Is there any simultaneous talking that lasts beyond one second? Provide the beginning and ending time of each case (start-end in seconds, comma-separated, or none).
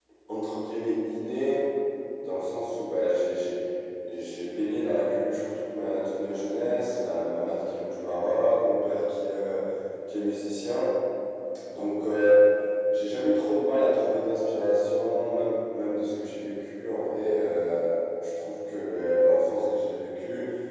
none